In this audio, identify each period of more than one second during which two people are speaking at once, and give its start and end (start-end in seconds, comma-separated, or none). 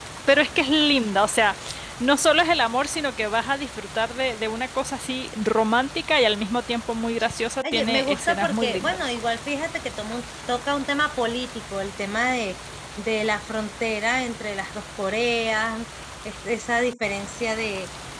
7.6-9.2